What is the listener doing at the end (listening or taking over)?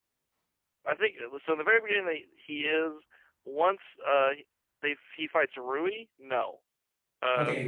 taking over